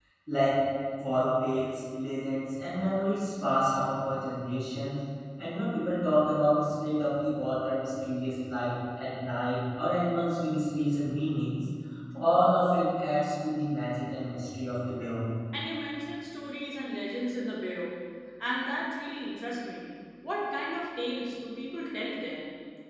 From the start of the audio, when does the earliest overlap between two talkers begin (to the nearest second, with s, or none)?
none